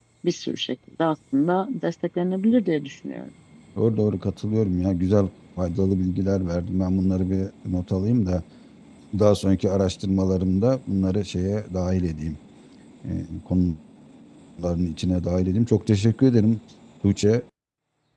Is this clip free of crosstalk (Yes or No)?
Yes